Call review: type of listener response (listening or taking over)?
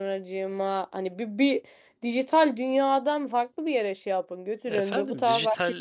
taking over